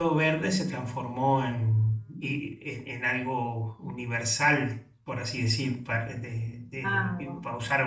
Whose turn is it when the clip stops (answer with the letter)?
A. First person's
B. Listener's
A